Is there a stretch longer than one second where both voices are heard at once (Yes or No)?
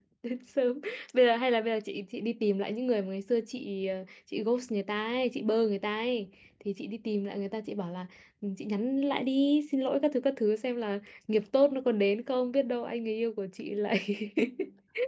No